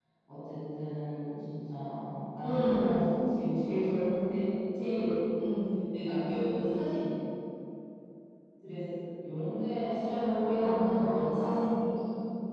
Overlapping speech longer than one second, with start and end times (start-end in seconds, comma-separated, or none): 9.8-11.5